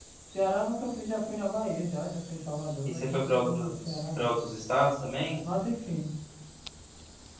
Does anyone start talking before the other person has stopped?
Yes, from 2.9 s

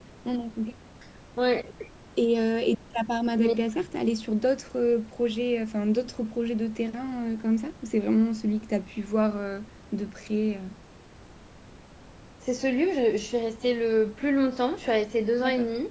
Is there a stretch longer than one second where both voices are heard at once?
No

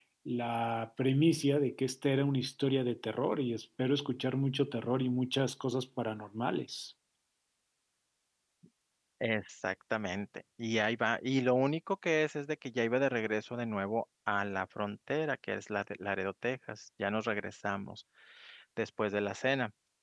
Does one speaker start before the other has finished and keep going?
No

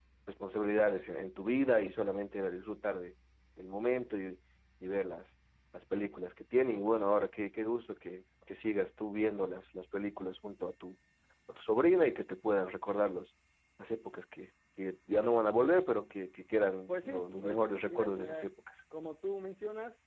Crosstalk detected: Yes, from 16.9 s

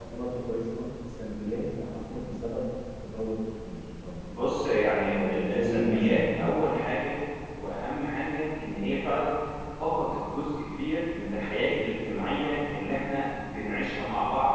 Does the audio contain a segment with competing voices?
Yes, from 5.1 s

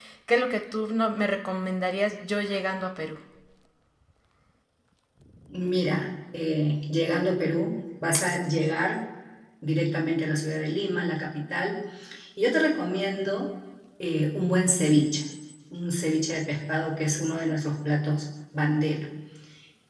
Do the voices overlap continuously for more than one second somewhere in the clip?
No

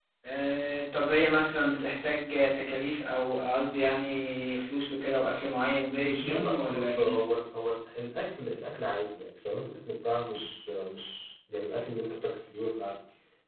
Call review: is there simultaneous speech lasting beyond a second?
Yes, from 6.1 s

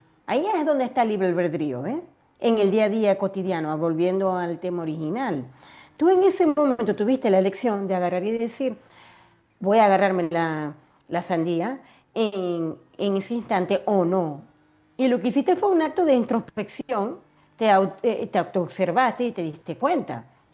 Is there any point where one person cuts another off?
No

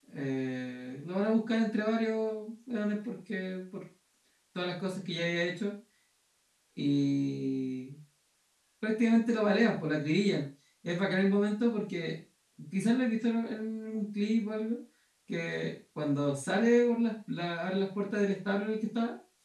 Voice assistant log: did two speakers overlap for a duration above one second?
No

